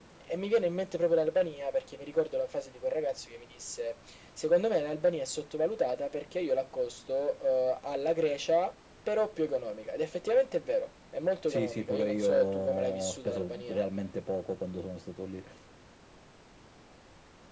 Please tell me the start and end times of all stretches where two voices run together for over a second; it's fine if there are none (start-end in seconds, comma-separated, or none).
11.5-13.8